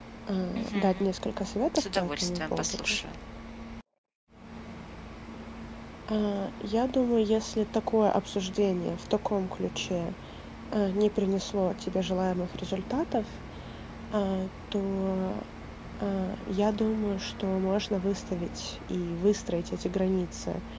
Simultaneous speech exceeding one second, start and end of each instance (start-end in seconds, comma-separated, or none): 1.8-3.0